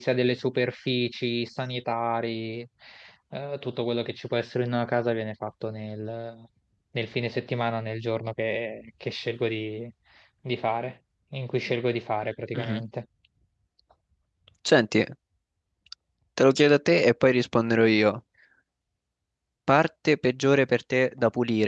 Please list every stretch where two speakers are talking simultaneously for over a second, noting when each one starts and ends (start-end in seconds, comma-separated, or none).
none